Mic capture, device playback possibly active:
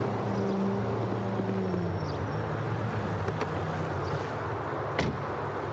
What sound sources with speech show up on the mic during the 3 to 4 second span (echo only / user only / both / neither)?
neither